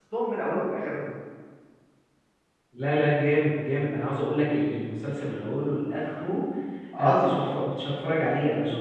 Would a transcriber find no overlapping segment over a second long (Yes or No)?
Yes